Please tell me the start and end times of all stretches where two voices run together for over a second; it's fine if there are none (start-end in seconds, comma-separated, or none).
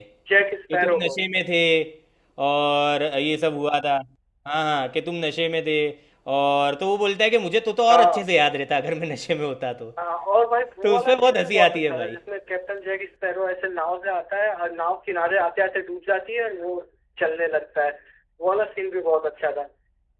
10.8-12.2